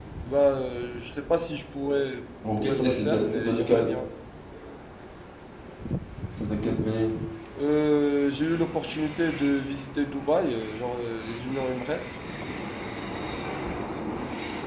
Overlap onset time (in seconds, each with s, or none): 2.6 s